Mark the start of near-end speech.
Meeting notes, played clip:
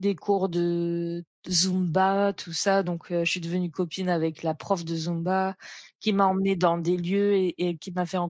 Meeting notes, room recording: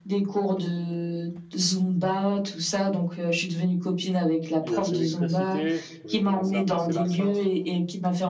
5 s

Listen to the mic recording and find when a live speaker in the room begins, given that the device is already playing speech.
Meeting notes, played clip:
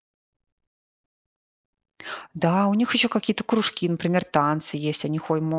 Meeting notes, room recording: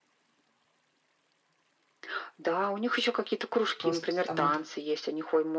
4 s

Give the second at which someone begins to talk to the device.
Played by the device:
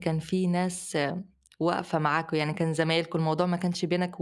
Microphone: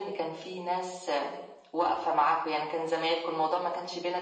none

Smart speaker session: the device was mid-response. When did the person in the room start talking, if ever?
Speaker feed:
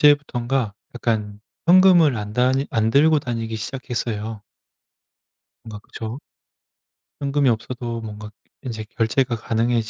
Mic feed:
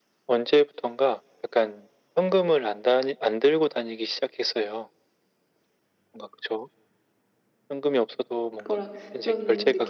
9 s

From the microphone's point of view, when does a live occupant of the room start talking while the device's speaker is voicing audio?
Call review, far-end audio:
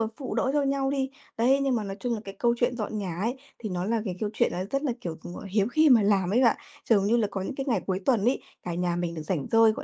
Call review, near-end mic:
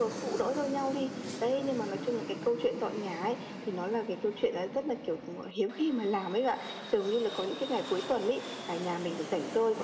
none

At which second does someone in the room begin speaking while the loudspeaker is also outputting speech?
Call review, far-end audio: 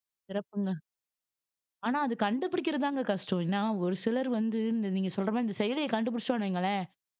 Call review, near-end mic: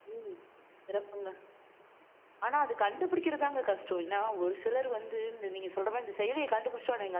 none

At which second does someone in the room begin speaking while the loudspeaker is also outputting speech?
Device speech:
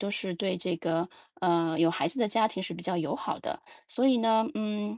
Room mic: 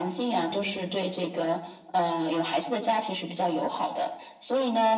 0 s

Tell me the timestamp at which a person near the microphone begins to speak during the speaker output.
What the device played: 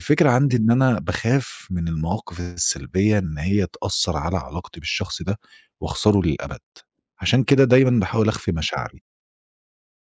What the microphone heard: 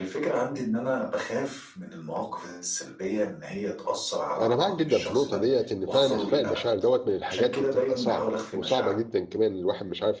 4 s

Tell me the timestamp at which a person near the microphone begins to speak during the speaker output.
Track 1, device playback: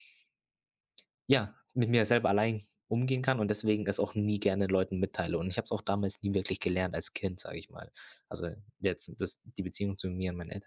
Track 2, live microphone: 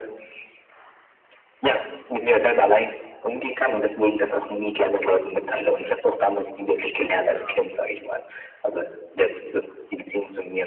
7 s

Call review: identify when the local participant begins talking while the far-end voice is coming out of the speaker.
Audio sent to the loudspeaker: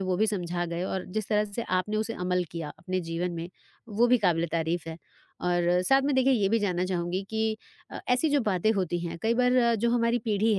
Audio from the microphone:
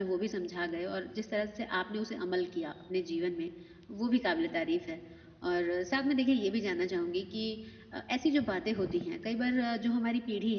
none

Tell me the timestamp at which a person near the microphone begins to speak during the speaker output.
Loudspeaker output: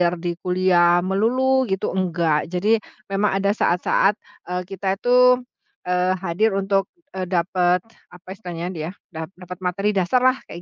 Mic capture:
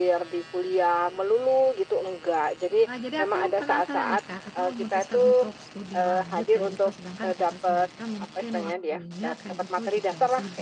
3 s

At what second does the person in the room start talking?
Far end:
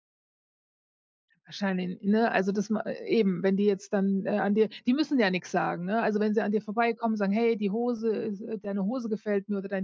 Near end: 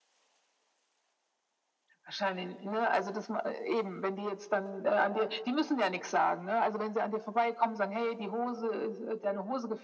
none

